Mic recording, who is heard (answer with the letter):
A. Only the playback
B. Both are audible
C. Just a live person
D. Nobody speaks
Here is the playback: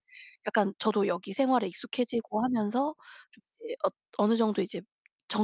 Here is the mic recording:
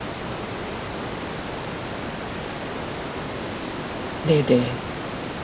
C